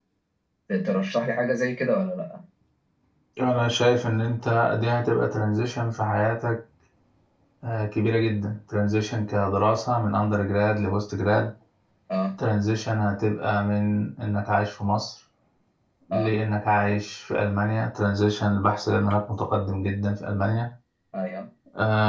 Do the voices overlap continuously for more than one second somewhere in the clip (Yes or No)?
No